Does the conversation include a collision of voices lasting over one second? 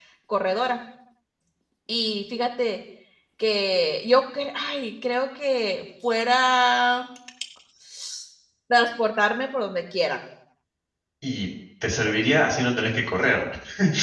No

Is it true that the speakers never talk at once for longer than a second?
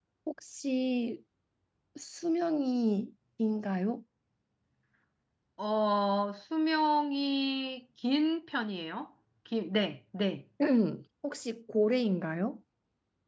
Yes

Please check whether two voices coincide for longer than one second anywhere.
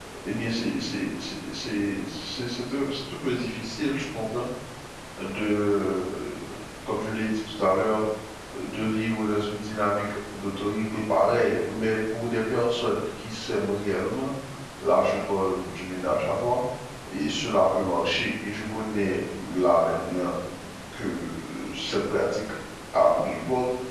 No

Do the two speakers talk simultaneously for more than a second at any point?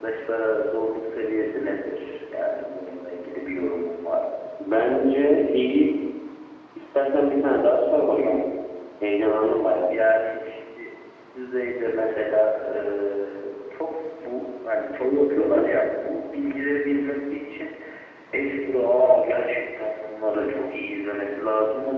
No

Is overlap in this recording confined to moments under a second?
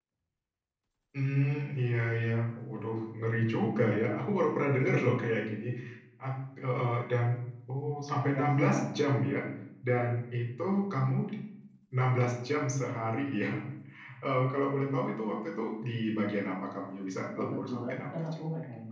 No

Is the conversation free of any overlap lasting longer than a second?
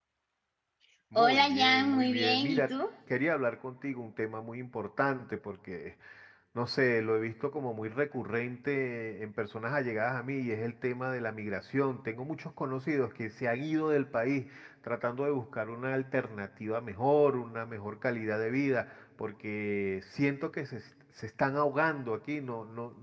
No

